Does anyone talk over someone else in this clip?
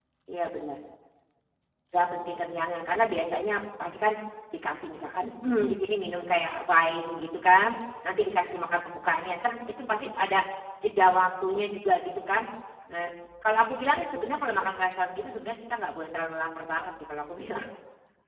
No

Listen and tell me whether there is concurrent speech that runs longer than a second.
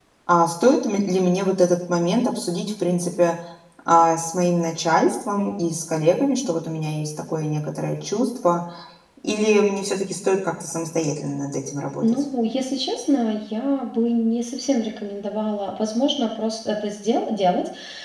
No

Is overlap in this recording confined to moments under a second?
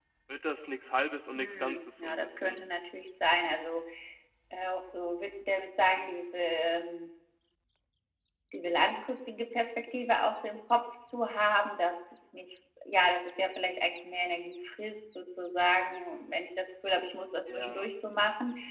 No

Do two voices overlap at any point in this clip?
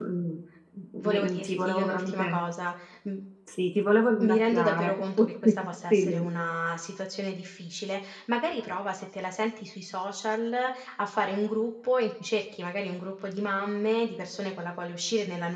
Yes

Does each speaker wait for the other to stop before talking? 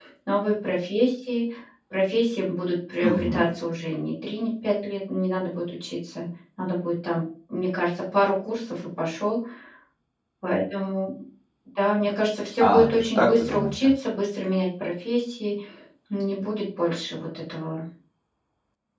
No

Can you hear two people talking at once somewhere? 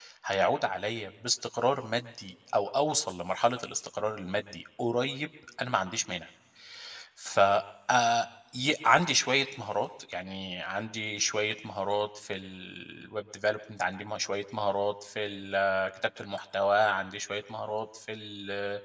No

